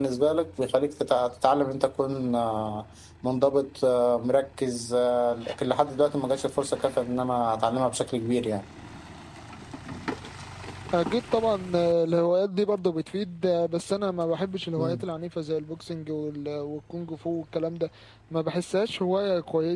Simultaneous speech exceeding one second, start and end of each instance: none

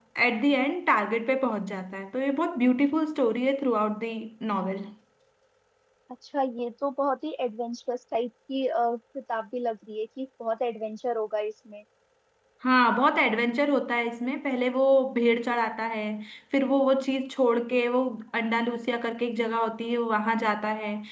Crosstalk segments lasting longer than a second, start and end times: none

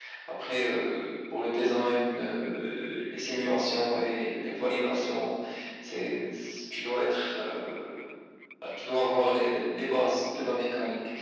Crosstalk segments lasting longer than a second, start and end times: none

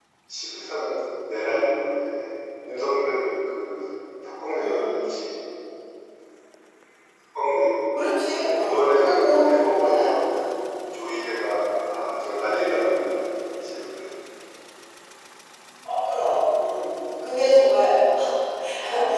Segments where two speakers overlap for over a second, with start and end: 8.6-10.3

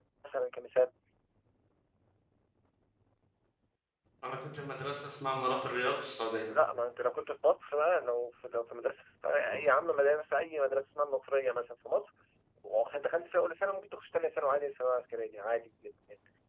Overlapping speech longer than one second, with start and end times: none

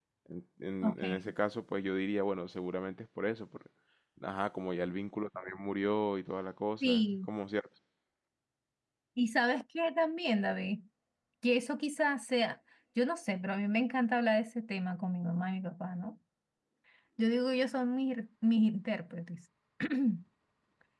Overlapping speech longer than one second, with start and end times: none

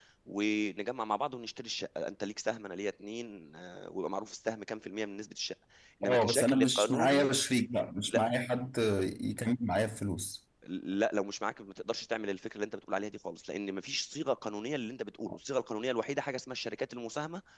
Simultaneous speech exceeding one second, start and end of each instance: 6.0-7.3

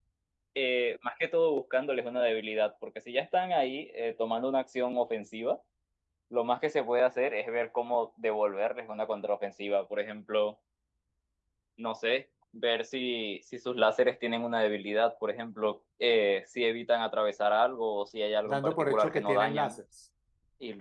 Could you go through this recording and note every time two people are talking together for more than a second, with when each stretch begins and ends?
18.4-19.7

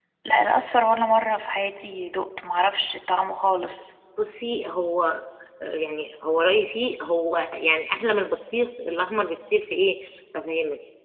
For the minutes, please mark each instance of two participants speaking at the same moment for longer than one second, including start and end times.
none

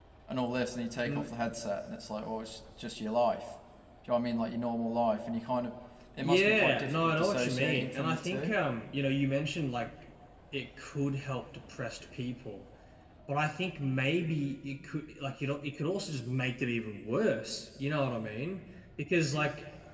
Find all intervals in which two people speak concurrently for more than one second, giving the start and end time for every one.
6.2-8.5

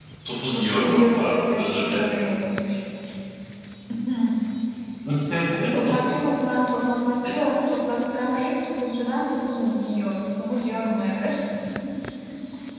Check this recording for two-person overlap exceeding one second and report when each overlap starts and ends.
0.5-2.0

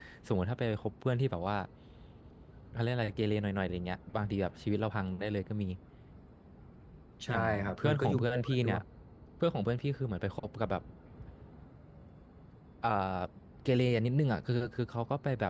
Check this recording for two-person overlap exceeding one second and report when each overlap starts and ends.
7.3-8.8

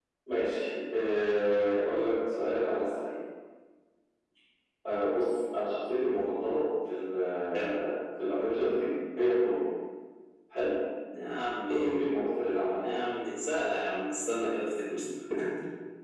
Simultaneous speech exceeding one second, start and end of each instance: none

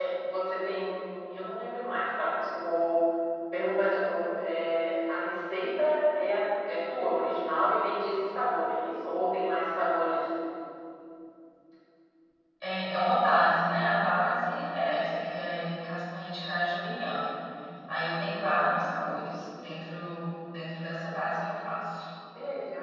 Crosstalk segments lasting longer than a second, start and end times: none

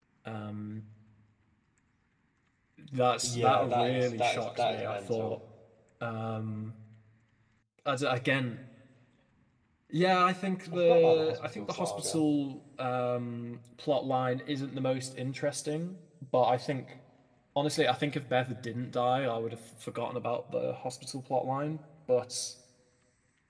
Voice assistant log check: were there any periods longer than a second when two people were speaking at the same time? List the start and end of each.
3.2-5.3, 10.7-12.2

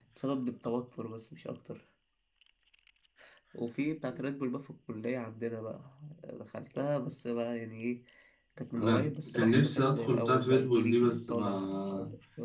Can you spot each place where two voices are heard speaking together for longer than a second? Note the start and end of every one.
8.8-11.9

